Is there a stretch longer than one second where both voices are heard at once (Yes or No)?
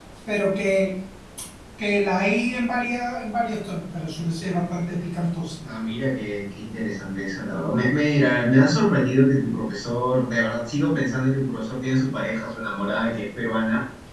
No